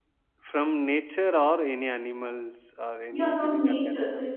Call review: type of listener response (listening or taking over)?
taking over